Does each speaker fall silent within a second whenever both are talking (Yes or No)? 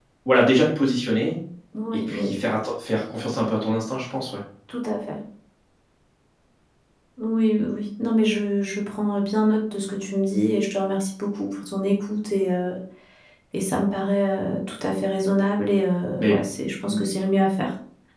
Yes